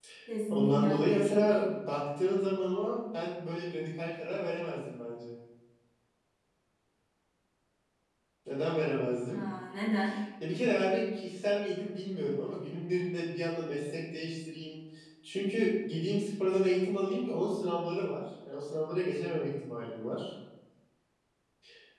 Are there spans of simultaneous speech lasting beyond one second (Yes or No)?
Yes